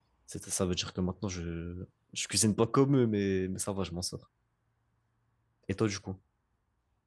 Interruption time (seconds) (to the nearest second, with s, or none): none